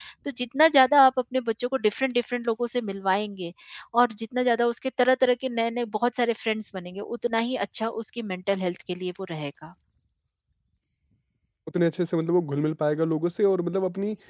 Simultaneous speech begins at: none

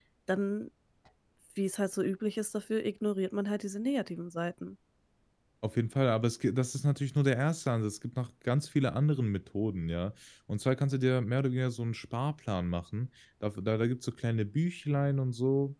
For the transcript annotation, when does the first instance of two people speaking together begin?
none

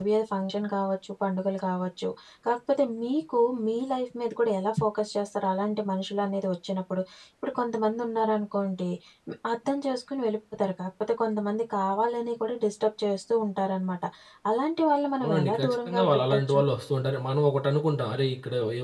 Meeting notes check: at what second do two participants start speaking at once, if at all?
15.2 s

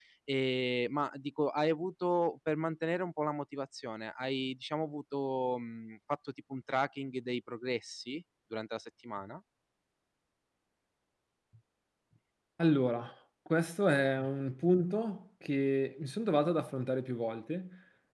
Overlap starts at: none

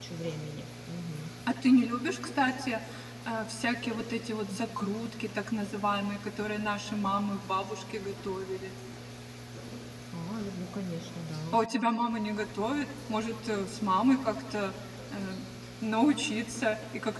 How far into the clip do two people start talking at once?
none

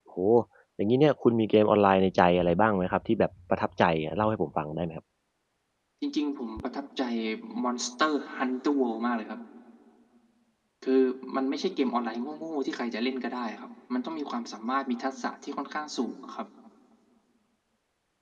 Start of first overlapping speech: none

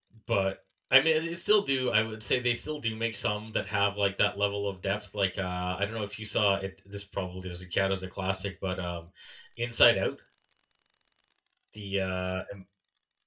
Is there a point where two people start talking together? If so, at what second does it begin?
none

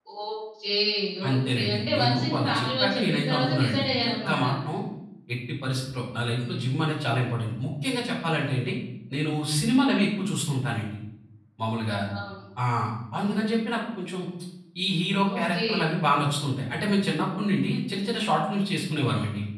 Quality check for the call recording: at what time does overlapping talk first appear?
1.3 s

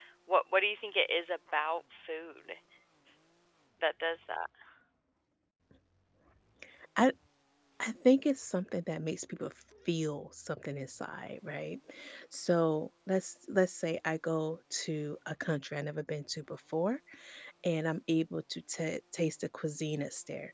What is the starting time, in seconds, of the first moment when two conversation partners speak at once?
none

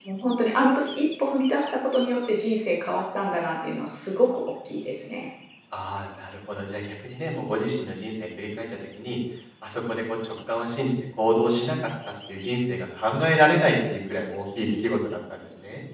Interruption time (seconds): none

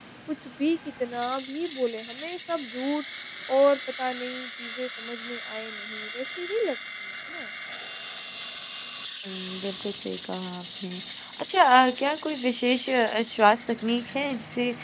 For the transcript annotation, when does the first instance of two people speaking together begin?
none

